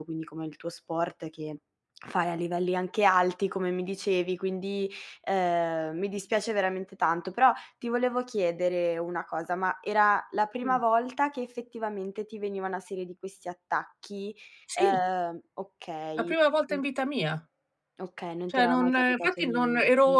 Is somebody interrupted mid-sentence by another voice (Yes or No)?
Yes